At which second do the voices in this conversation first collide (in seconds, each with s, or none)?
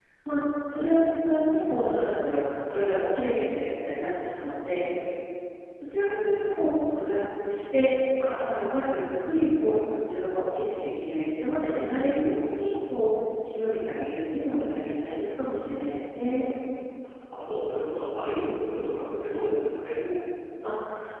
none